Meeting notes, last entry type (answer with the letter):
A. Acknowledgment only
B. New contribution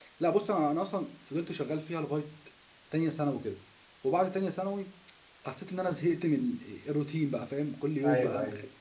A